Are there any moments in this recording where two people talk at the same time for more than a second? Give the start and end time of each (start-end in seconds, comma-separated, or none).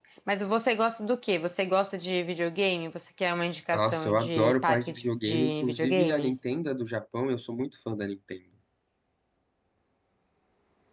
3.7-6.3